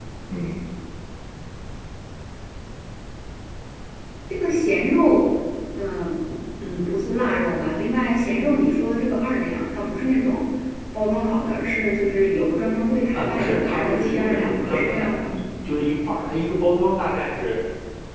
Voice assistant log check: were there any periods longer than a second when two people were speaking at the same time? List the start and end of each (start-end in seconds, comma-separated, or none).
13.1-15.4